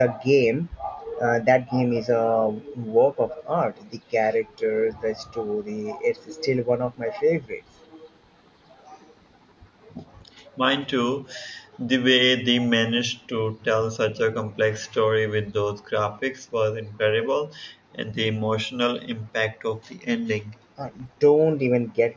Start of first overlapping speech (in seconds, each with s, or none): none